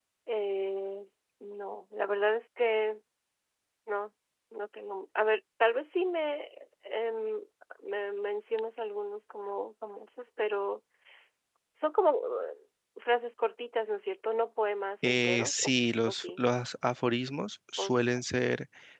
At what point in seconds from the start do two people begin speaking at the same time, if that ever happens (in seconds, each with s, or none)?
15.0 s